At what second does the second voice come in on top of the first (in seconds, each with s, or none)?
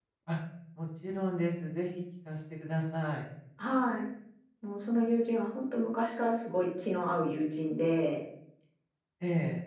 none